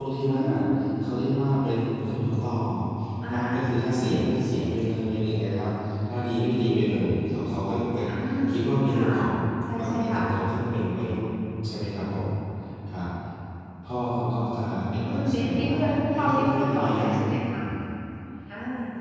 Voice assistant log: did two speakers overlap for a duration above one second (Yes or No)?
Yes